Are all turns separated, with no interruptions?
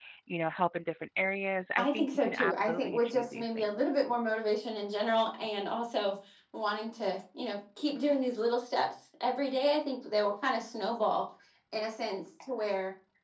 No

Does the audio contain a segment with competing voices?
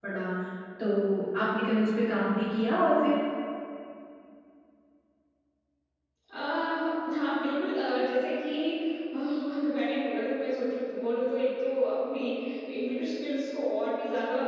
No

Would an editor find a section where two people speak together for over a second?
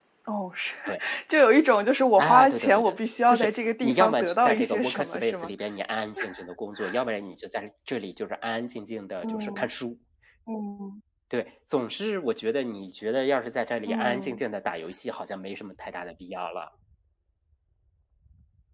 Yes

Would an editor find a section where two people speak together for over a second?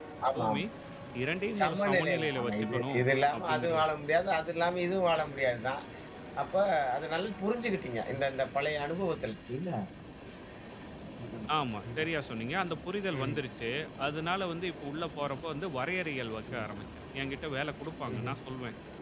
Yes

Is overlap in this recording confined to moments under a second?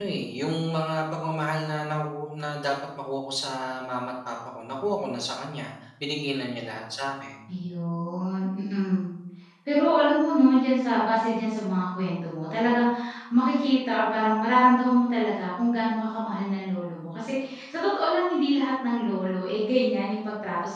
Yes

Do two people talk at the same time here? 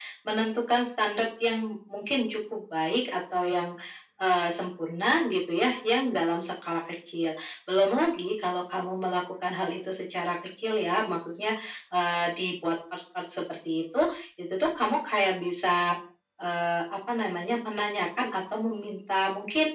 No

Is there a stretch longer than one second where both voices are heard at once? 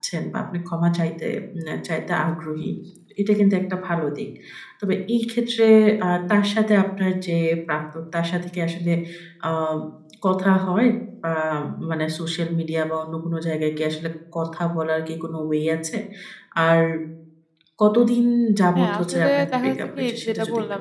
Yes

